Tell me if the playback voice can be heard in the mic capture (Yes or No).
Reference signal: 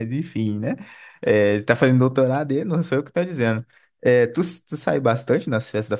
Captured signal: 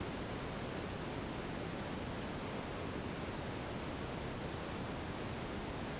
No